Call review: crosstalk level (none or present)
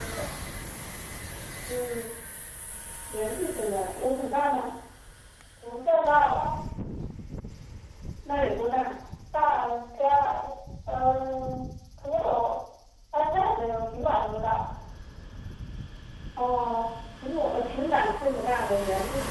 none